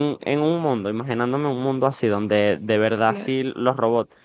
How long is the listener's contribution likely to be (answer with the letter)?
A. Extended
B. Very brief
B